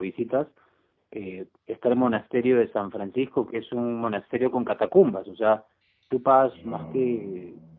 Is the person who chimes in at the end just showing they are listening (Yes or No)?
Yes